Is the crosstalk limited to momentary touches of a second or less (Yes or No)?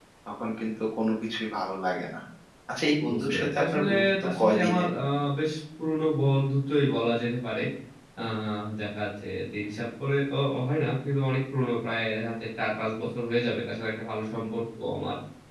No